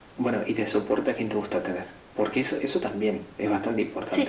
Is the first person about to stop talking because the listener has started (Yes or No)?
Yes